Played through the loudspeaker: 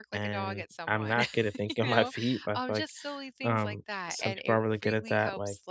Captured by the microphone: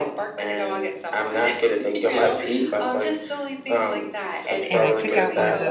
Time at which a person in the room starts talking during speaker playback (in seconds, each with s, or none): 4.7 s